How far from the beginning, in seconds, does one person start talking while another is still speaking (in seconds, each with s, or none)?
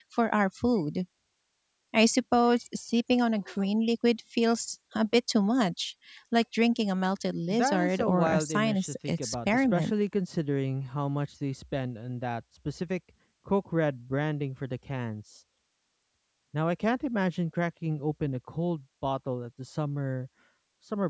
7.5 s